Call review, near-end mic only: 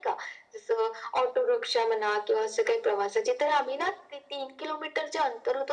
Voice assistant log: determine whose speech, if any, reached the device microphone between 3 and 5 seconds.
echo only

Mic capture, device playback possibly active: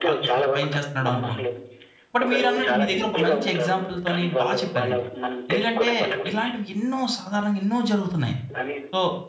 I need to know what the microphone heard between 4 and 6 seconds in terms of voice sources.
both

